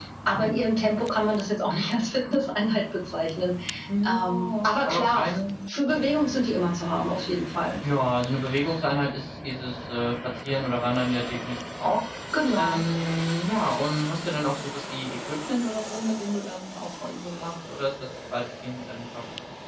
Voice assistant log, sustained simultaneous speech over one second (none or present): present